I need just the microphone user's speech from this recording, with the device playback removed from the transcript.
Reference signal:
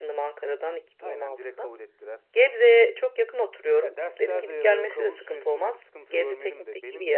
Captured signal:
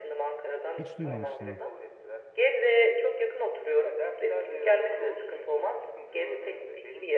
Hiç duymamıştım ha.

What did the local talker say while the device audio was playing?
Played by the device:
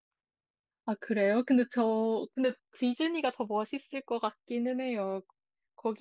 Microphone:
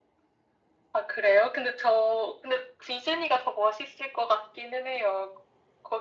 none

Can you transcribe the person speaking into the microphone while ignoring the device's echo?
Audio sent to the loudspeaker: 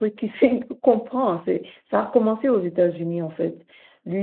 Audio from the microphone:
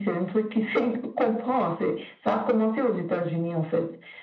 none

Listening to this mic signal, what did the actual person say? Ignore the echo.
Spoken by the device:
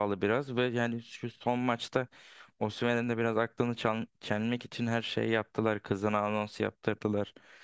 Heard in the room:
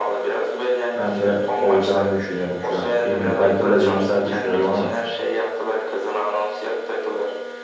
Ben de olacağını düşünüyorum şu an. Bilmiyorum. Belki biraz iyimser düşünüyorum ama.

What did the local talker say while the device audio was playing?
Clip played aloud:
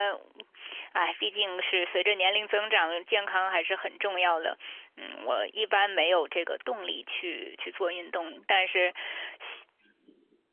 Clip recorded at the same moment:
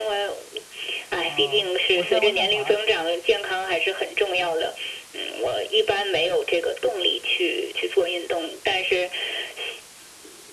啊？我在渥太华，

